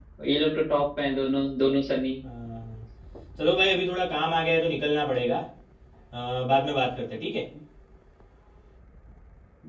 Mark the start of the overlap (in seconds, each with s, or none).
none